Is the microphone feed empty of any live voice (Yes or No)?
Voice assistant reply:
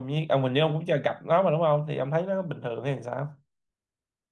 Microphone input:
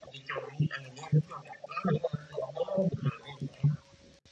Yes